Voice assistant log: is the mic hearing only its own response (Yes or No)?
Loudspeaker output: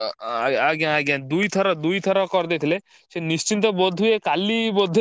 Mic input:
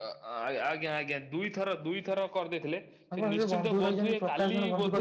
No